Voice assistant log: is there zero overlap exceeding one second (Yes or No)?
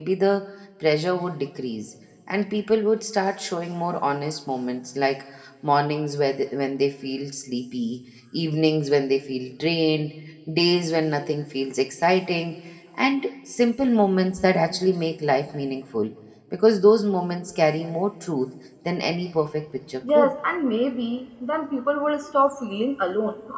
Yes